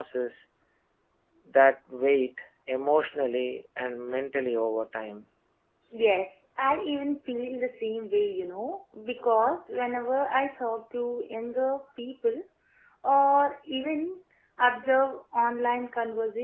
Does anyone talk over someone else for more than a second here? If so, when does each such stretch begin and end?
none

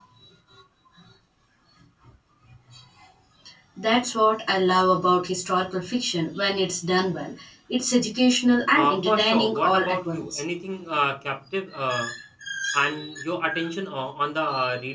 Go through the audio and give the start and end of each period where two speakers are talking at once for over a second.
8.7-10.4

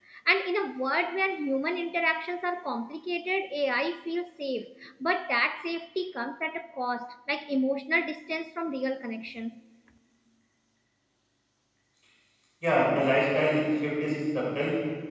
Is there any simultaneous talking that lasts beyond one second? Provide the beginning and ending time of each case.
none

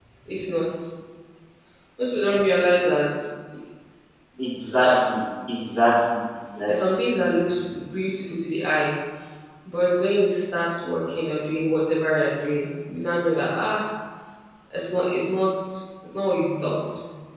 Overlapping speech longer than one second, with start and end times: none

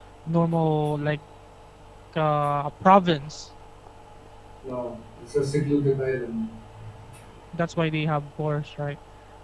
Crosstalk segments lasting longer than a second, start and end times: none

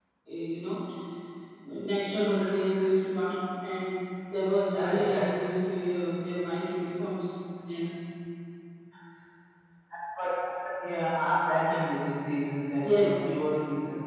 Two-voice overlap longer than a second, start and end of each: none

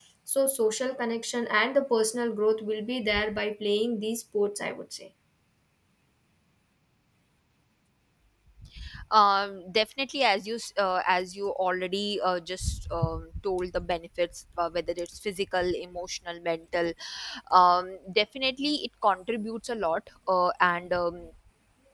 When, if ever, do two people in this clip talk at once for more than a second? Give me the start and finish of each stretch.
none

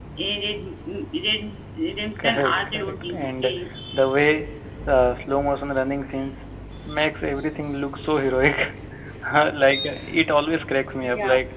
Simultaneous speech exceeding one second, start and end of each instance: 2.2-3.5

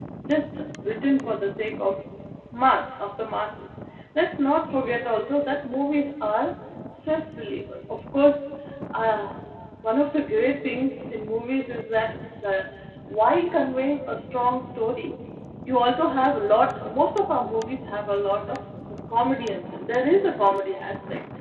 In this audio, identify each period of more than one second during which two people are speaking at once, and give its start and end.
none

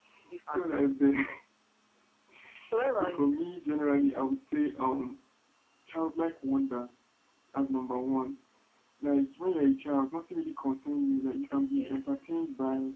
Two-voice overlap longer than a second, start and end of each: none

